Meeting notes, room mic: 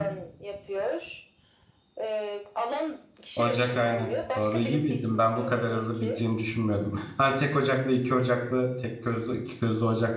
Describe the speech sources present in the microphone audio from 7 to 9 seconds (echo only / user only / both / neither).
user only